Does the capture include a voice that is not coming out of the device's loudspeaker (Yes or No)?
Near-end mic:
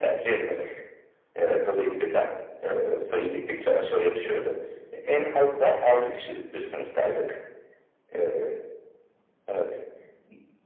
No